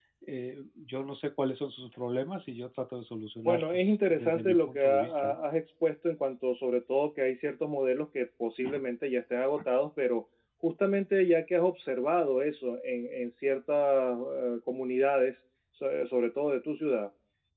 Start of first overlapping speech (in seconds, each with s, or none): 3.5 s